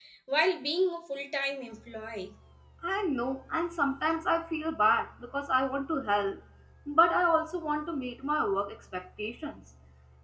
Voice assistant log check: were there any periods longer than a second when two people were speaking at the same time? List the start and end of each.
none

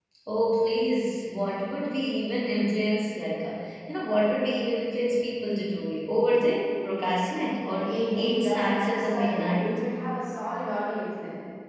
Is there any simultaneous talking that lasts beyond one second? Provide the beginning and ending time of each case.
7.8-9.8

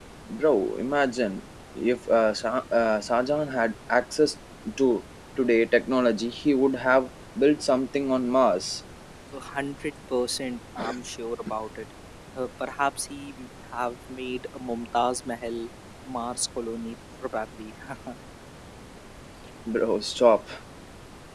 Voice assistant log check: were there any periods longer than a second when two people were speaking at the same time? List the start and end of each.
none

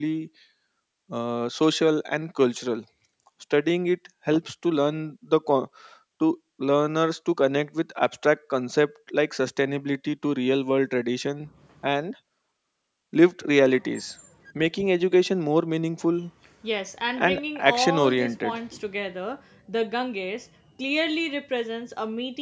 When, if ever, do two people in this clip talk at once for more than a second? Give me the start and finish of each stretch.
17.2-18.6

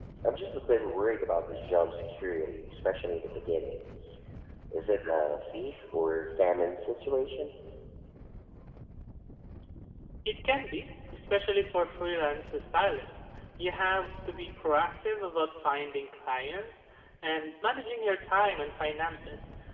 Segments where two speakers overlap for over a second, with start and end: none

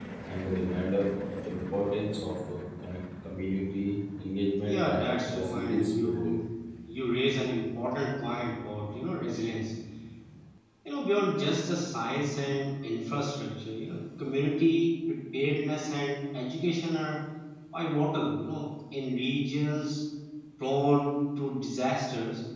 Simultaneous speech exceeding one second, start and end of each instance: 4.6-6.4

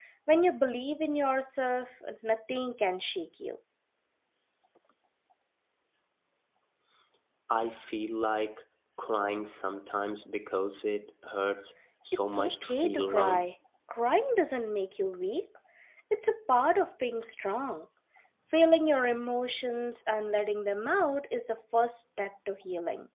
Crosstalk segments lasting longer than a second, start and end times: 12.1-13.4

